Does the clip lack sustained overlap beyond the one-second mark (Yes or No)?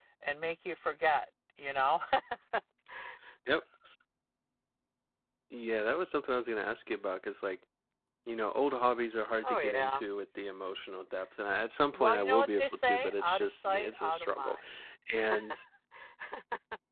No